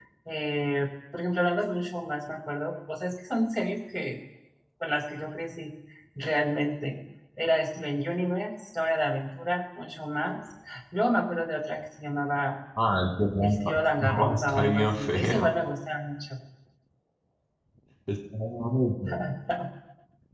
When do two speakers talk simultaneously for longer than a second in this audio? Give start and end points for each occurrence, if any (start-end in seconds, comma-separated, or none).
13.4-15.5